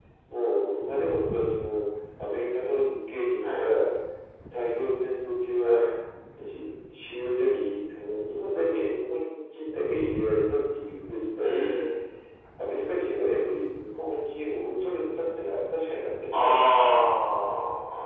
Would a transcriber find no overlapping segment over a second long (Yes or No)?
Yes